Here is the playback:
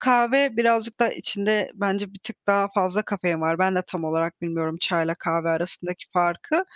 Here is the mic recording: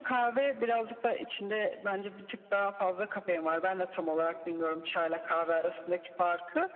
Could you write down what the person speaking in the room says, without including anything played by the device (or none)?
none